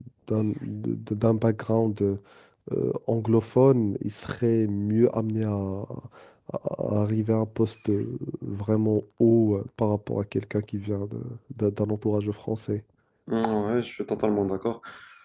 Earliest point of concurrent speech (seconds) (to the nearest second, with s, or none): none